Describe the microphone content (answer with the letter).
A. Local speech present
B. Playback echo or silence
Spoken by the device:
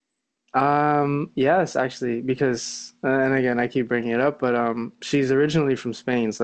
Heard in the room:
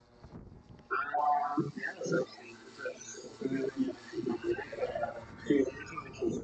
B